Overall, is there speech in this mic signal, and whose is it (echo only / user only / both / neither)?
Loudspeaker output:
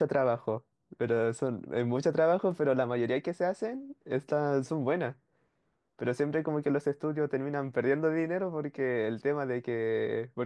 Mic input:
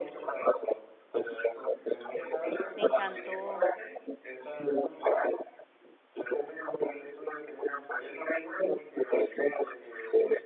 both